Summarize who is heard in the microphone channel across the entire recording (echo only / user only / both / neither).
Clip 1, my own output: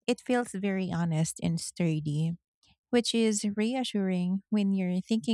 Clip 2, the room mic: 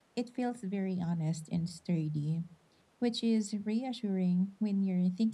echo only